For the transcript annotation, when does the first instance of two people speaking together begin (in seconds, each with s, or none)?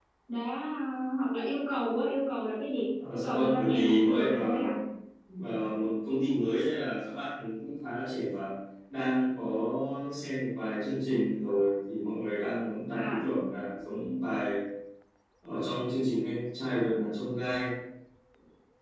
3.1 s